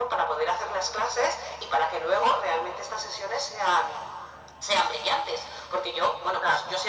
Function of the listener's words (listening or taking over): listening